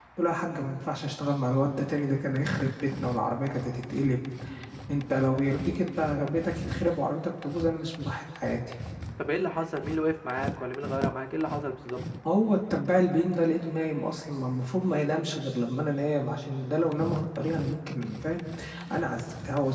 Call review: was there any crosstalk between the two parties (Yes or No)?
No